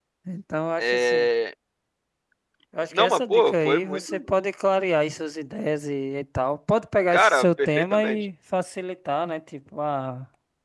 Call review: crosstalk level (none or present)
present